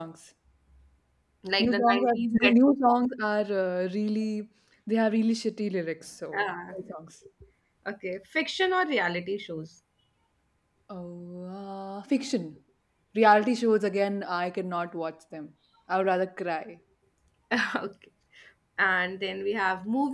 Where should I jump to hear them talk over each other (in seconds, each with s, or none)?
1.6 s